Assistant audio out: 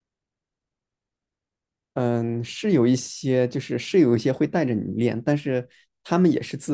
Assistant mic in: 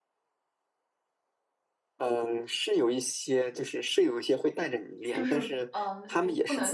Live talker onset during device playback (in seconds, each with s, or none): 5.1 s